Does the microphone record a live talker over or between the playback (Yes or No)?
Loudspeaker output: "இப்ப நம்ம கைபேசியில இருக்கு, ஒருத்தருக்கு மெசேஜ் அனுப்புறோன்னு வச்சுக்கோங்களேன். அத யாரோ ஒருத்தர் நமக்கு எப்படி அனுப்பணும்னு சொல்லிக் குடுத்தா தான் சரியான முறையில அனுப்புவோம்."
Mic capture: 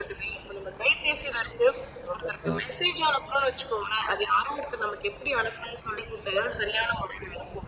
Yes